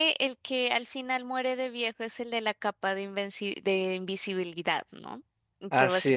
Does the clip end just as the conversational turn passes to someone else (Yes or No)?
No